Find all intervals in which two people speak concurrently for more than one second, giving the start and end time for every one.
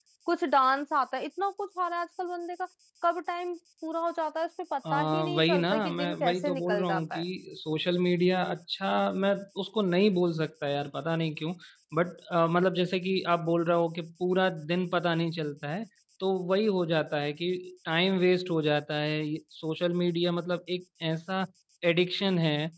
4.9-7.2

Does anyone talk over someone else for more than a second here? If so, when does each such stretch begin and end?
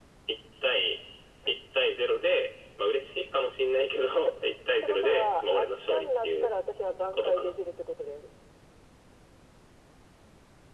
4.8-6.5

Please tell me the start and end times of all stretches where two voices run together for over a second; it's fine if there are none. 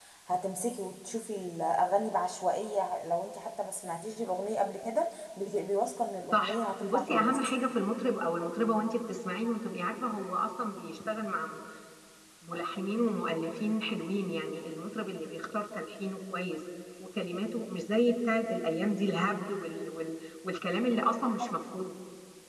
6.3-7.5

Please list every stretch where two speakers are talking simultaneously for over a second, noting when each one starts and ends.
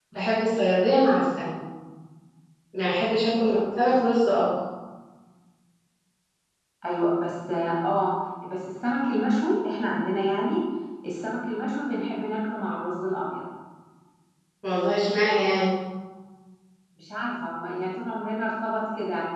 none

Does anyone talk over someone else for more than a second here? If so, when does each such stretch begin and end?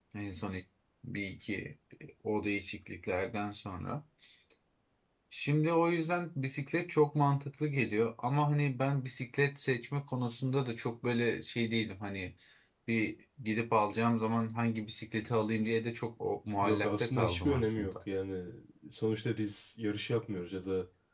16.6-18.0

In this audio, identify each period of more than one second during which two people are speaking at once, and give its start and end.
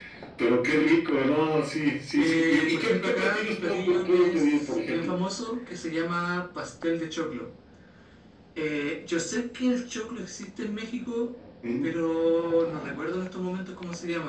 2.2-5.1

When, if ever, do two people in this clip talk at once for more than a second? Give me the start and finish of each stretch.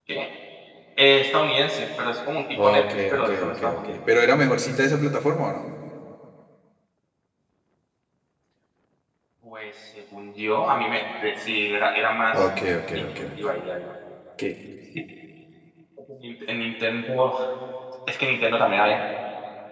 2.6-3.9

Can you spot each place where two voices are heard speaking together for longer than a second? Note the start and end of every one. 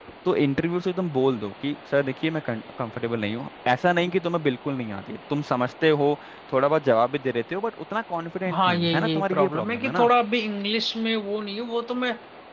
8.5-10.1

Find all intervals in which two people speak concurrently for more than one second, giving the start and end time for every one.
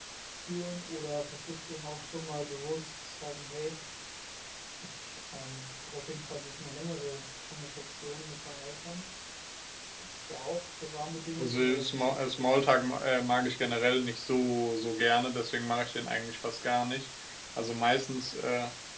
11.4-12.7

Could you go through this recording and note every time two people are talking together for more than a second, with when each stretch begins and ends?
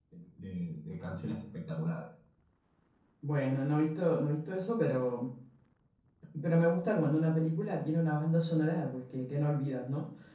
none

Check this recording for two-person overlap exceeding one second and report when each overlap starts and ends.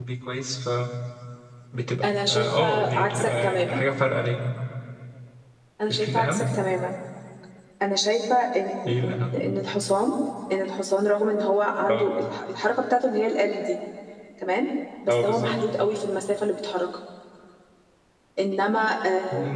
2.0-3.9

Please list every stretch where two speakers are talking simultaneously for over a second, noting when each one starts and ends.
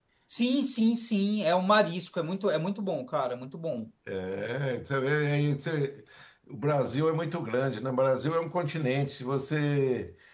none

